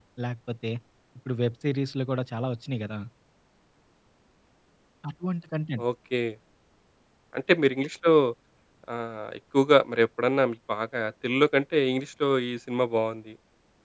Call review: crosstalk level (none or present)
none